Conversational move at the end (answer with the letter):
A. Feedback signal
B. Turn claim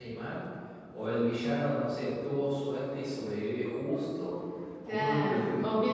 B